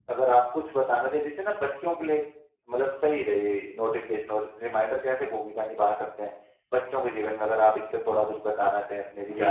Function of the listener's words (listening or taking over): taking over